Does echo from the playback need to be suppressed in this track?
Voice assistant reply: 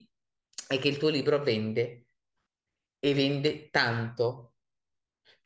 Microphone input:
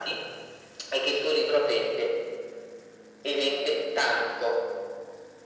Yes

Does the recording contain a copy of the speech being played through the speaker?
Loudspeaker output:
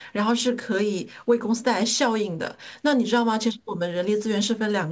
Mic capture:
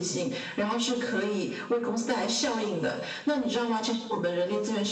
Yes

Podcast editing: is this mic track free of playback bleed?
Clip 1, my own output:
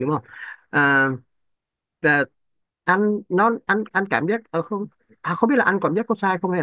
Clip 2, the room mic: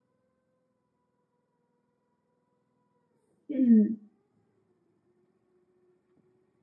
Yes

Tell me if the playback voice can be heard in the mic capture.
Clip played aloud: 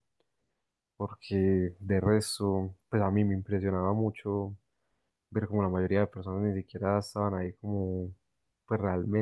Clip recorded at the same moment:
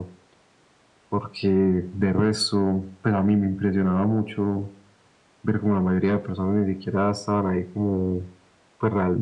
Yes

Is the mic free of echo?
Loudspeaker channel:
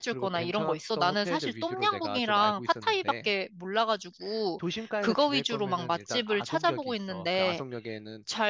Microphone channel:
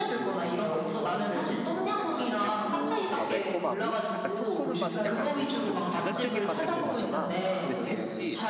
No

